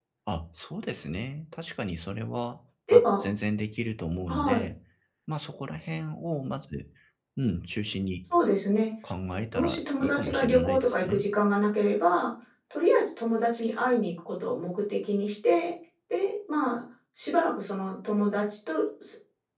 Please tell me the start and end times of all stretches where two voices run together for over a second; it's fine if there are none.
9.5-11.2

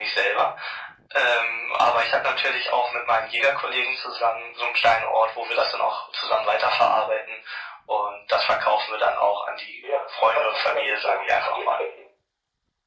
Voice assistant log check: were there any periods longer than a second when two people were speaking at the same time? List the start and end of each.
9.8-11.8

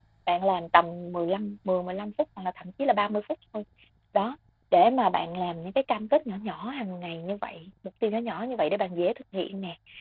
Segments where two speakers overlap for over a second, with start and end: none

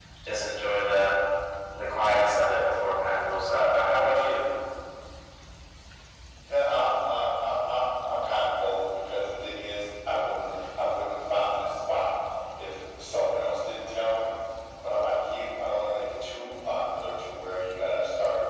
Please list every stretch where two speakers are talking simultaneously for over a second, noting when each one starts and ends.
none

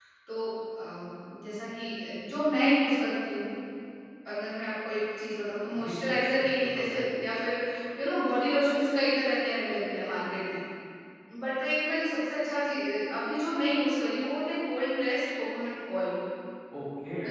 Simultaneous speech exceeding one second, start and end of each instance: 5.8-7.0

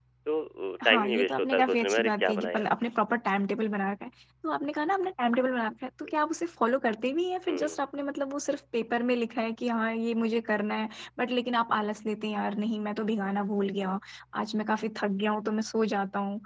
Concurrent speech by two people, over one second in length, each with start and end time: 0.8-2.7

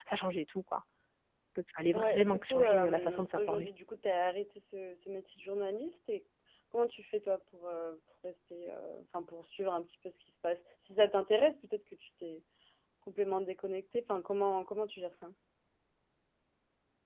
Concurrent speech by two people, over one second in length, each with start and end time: 1.9-3.7

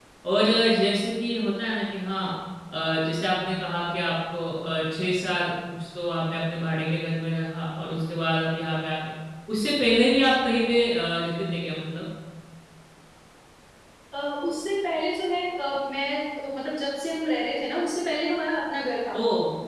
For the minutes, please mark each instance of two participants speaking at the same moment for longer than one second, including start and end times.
none

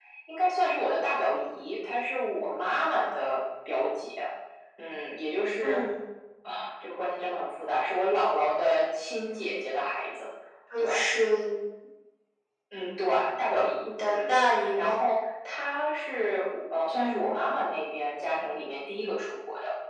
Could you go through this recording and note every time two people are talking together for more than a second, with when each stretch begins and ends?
none

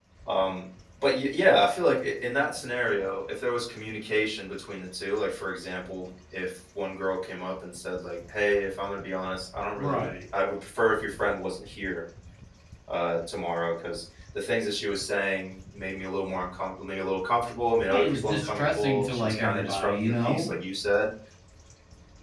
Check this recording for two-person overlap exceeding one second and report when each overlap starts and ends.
17.9-20.5

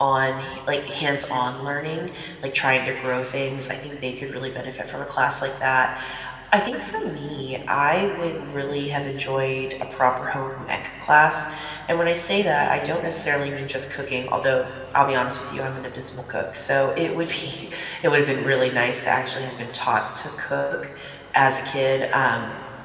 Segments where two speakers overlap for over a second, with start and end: none

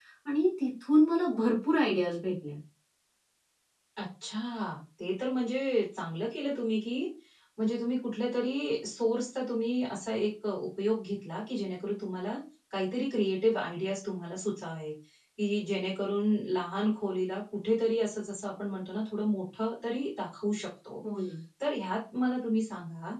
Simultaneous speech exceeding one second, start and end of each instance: none

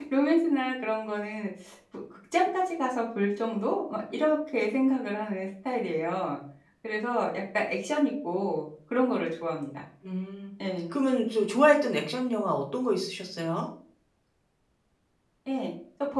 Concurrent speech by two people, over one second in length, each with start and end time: none

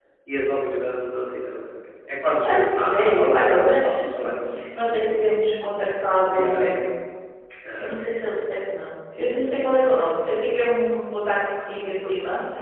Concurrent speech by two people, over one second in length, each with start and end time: 2.4-4.4

